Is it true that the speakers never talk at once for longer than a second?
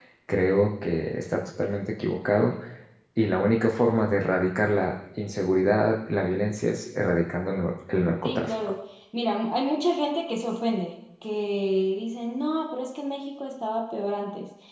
Yes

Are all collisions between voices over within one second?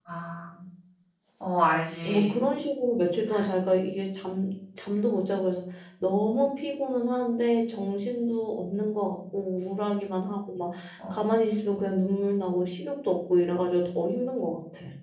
Yes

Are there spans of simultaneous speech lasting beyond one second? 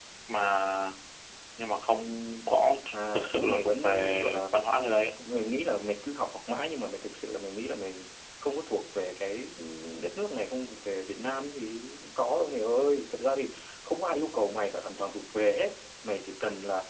Yes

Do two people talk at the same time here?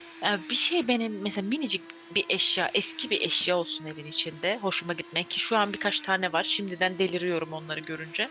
No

